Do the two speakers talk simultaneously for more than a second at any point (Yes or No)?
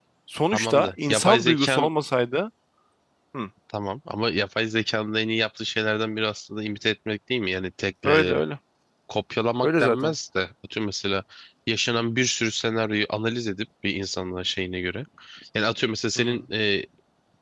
Yes